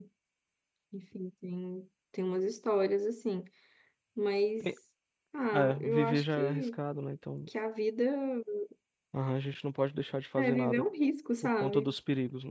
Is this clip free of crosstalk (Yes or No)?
No